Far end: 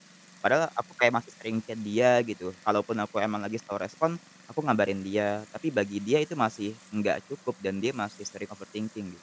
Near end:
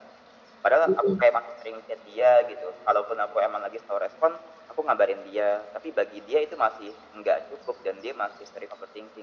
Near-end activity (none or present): present